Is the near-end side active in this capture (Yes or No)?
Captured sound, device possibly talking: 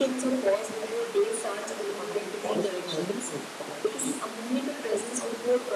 No